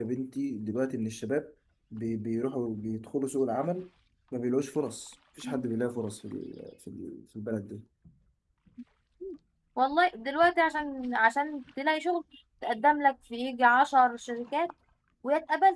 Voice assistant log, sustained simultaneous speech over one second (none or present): none